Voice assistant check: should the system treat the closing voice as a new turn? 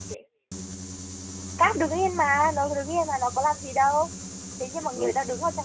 No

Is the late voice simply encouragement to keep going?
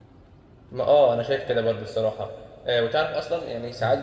Yes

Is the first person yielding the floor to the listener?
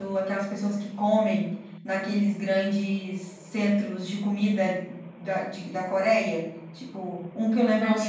Yes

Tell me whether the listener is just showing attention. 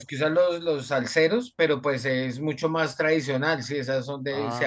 Yes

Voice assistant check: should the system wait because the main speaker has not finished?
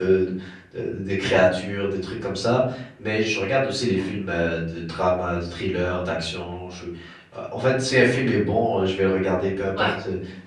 Yes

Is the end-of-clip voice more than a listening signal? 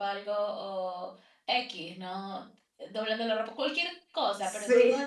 No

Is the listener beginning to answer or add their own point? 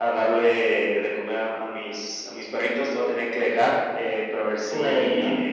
No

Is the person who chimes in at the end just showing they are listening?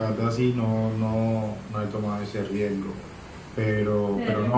Yes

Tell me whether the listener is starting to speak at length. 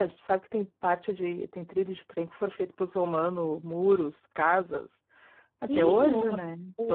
Yes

